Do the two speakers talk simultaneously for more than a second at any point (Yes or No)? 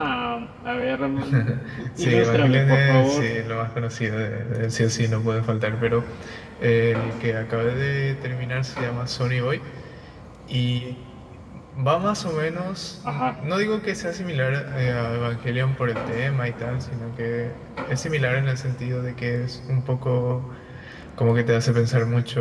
Yes